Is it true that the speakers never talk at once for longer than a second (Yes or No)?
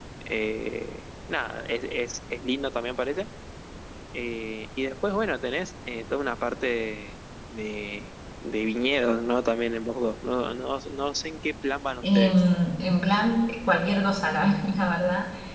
Yes